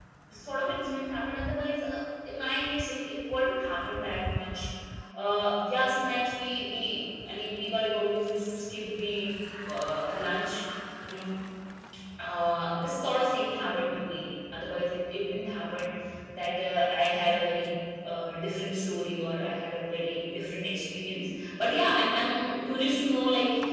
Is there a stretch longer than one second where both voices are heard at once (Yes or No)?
No